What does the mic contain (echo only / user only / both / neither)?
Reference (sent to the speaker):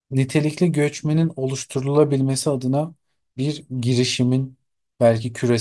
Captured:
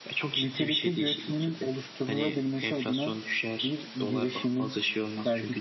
both